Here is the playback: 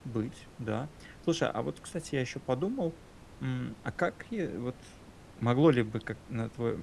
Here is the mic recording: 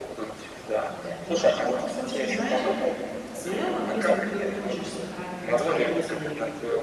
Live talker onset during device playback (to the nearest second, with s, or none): 1 s